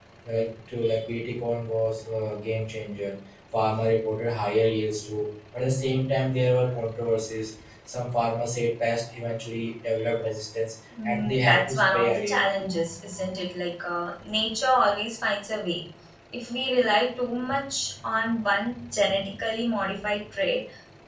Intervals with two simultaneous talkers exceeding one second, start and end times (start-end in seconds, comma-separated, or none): 11.0-12.4